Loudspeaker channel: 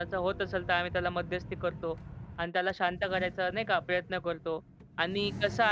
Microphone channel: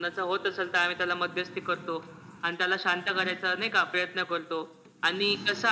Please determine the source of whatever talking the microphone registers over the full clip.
echo only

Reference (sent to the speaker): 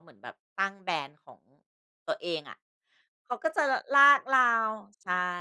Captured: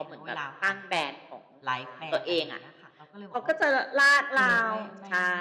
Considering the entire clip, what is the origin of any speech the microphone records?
both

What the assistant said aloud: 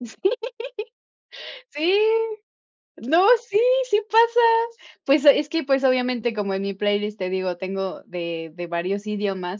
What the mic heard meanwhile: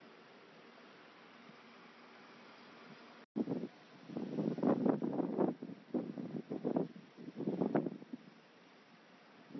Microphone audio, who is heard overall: neither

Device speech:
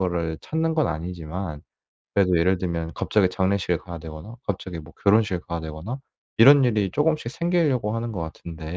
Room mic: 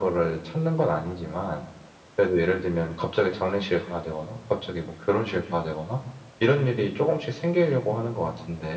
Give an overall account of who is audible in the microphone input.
echo only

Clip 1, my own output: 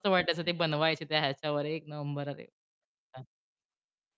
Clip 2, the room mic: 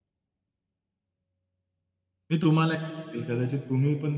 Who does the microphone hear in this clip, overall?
user only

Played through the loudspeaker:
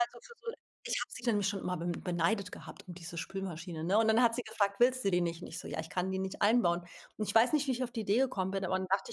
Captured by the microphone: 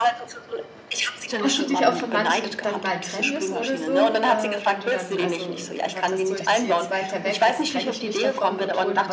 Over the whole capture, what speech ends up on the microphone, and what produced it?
both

